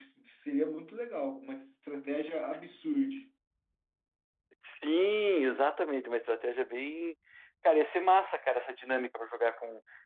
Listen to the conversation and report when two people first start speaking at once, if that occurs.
none

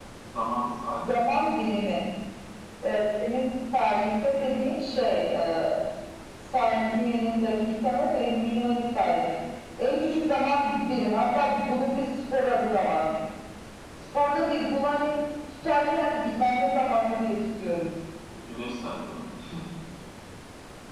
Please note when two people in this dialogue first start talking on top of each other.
none

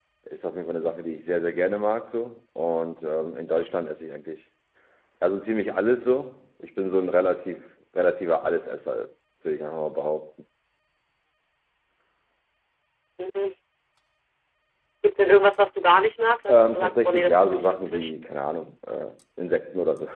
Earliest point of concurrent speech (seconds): 16.5 s

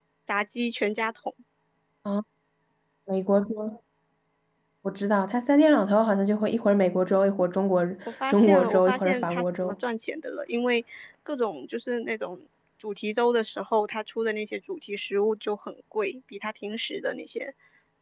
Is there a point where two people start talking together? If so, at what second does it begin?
8.3 s

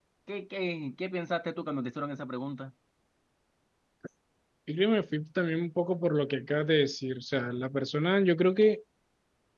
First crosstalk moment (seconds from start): none

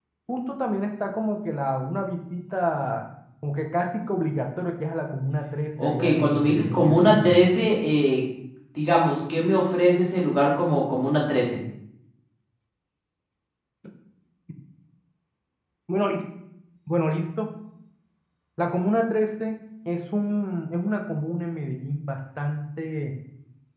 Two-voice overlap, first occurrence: 5.8 s

